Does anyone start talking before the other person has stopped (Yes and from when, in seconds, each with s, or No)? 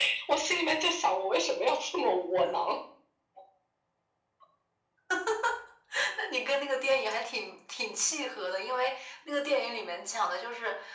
No